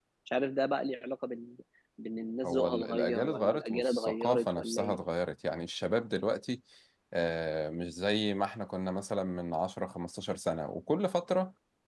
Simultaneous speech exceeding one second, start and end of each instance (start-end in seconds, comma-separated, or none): 2.4-5.0